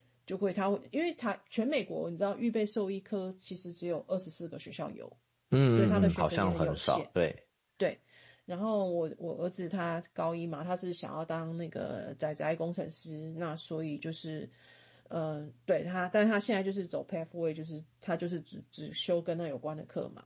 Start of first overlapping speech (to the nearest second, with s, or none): 6 s